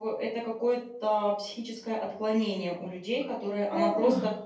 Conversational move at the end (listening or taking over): listening